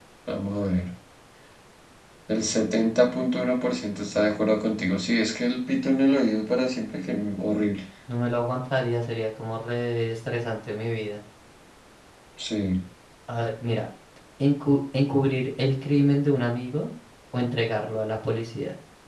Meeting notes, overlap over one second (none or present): none